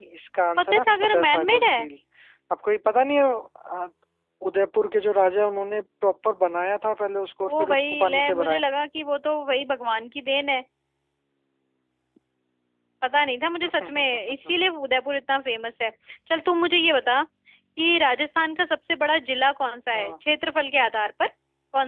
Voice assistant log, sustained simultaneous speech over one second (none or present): present